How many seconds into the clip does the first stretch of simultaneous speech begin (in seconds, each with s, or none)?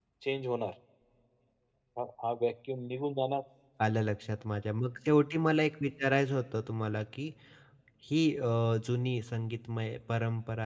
none